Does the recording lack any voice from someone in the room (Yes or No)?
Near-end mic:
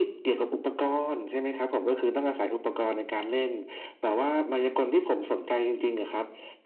Yes